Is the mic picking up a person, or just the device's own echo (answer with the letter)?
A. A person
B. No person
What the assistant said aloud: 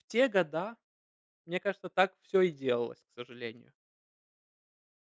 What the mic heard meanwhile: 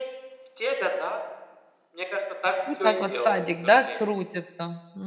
A